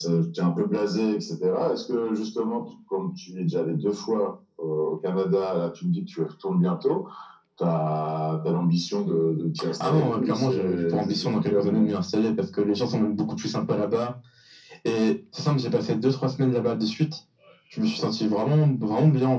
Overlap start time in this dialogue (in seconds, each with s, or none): 9.6 s